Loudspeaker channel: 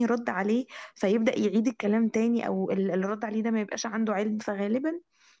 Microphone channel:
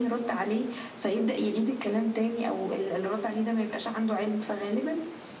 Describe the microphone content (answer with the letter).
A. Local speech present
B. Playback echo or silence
B